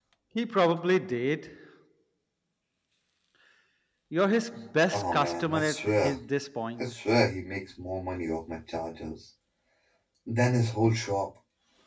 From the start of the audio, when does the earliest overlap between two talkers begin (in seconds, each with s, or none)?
4.9 s